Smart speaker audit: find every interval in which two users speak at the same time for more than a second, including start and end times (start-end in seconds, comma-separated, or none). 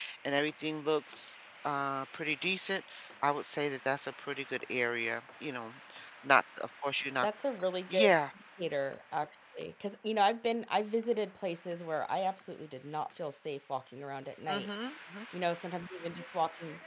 none